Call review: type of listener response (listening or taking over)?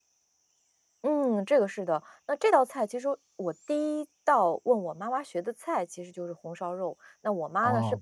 listening